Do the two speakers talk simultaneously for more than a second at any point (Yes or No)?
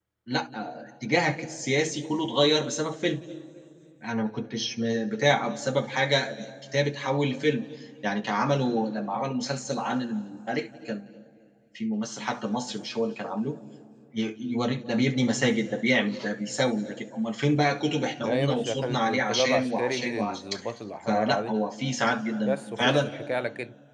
Yes